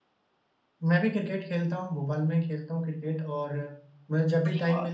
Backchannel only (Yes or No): Yes